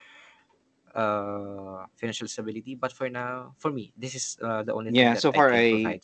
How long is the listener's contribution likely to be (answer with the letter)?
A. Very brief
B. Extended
B